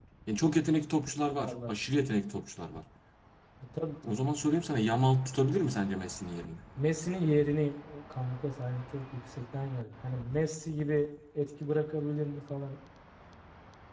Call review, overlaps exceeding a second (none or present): none